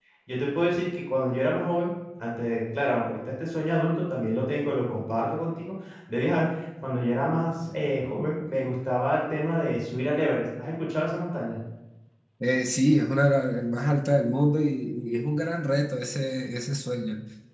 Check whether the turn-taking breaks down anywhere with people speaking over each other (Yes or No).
No